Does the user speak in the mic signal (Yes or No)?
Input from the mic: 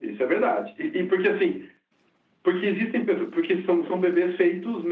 No